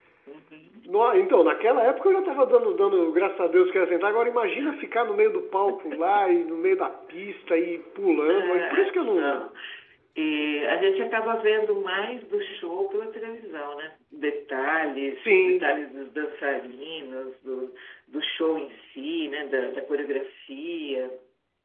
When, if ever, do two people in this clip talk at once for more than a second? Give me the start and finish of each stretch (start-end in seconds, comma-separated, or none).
8.3-9.5